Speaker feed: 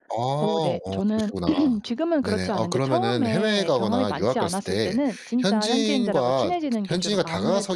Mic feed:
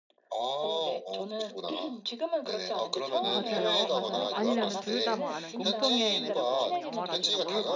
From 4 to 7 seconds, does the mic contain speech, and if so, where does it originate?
both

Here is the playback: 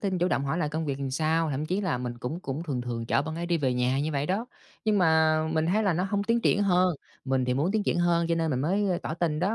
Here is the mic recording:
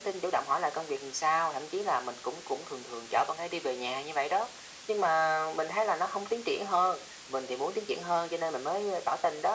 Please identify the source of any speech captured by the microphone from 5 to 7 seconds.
echo only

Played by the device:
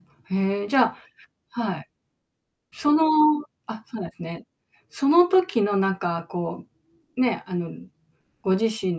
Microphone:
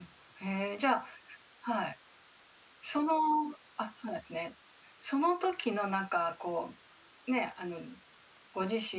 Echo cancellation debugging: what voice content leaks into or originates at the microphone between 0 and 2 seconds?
echo only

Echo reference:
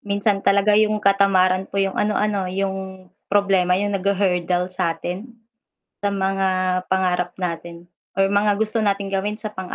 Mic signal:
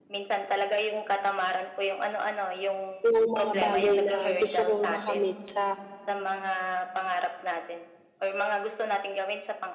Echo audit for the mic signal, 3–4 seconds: both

